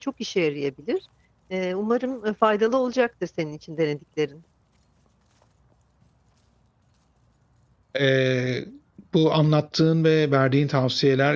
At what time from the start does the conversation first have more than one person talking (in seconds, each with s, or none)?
none